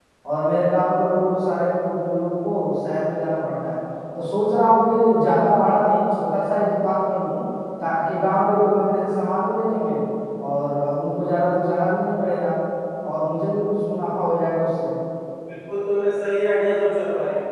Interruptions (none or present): none